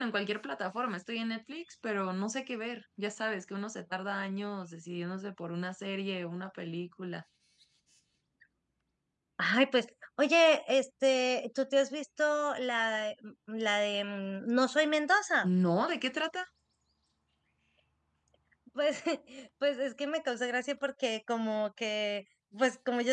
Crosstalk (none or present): none